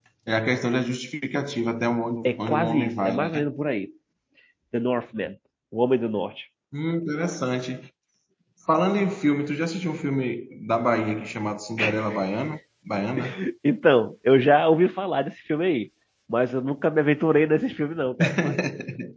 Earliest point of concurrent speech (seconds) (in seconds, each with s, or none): 2.2 s